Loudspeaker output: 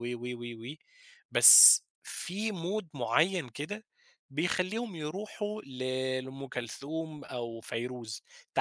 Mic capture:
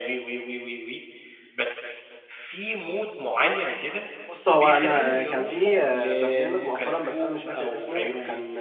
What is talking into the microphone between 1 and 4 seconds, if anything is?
echo only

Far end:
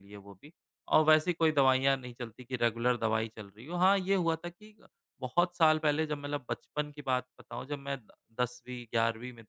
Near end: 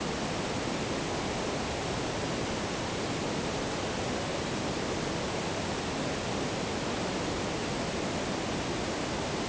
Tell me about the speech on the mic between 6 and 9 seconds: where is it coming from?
neither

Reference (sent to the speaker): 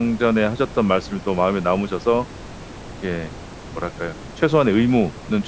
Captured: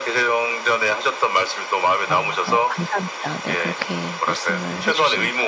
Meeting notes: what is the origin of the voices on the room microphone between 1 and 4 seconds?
both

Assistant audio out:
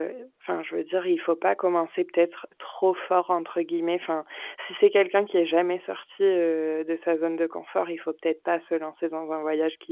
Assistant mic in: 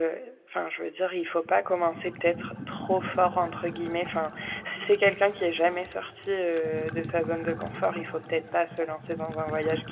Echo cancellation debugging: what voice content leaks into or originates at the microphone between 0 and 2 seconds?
echo only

